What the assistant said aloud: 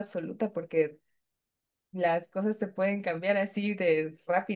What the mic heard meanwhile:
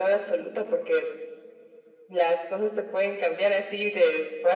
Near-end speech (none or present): none